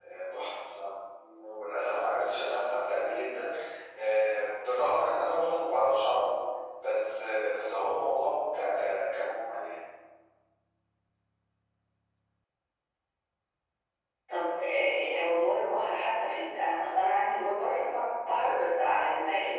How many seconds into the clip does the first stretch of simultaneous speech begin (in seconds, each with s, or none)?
none